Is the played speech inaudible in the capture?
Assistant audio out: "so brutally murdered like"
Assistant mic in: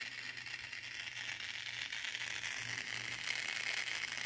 Yes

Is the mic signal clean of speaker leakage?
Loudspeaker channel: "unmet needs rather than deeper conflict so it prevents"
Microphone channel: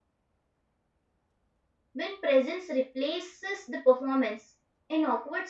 Yes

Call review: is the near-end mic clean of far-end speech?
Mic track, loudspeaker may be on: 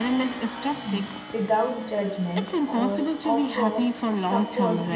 No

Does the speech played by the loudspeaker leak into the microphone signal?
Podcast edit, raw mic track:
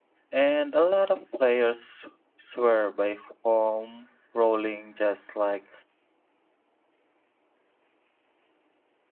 No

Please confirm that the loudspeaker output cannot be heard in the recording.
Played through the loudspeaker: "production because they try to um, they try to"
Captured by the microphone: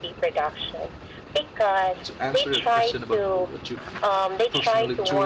No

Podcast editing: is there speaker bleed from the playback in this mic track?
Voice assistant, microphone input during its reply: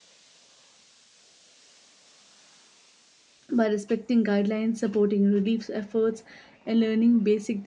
No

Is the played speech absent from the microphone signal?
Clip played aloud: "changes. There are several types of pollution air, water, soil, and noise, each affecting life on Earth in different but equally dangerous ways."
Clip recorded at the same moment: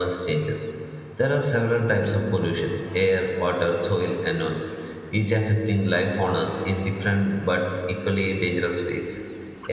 No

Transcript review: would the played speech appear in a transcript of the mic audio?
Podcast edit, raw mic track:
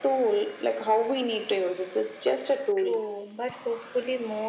Yes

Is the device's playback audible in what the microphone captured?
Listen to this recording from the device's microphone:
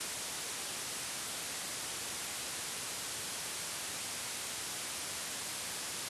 No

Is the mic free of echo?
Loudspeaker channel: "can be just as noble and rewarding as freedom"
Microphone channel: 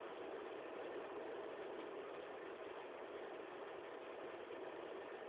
Yes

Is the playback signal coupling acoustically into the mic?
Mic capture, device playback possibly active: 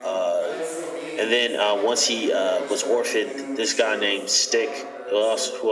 Yes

